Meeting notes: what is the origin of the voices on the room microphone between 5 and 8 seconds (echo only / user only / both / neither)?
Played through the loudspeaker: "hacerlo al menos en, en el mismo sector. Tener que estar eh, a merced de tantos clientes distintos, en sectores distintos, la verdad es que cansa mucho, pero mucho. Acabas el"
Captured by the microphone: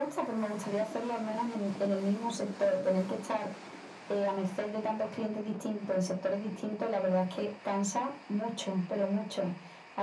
echo only